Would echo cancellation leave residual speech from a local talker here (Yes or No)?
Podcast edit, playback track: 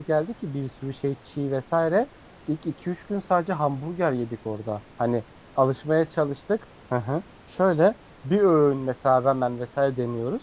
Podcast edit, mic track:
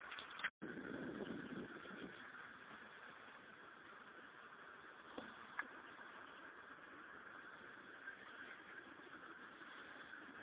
No